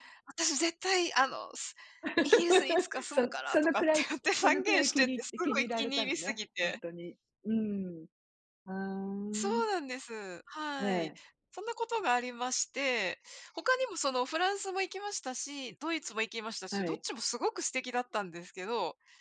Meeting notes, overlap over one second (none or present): present